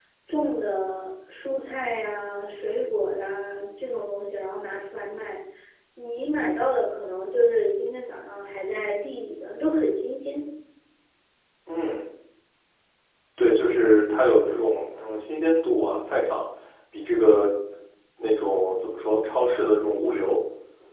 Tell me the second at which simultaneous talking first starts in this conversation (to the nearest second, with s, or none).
none